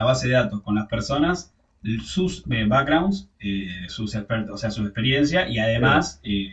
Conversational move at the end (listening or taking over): listening